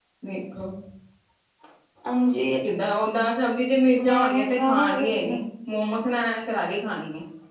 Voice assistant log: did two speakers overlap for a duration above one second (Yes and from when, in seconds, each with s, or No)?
Yes, from 4.0 s